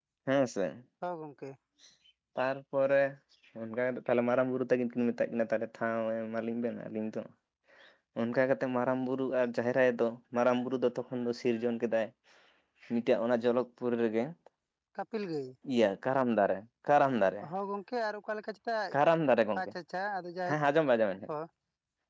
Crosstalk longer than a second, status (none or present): none